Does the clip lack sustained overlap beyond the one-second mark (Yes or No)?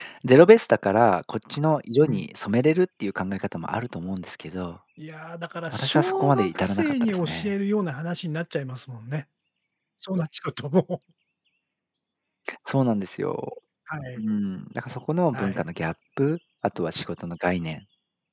No